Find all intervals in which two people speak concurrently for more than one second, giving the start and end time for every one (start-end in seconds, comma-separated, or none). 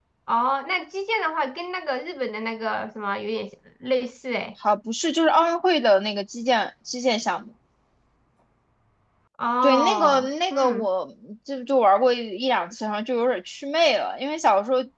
9.6-10.9